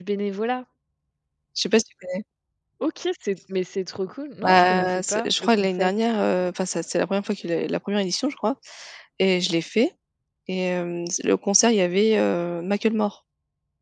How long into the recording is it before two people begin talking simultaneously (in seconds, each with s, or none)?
4.4 s